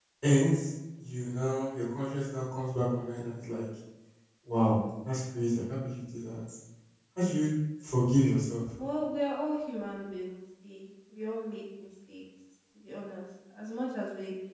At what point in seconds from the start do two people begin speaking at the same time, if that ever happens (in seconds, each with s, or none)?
none